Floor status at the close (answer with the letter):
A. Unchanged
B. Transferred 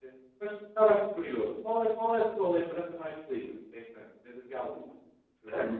B